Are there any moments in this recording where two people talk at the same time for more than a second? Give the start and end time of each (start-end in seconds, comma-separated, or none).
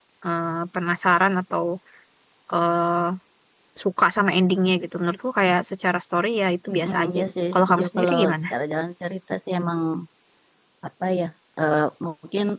6.8-8.3